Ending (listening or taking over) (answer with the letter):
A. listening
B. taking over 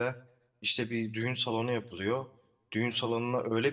A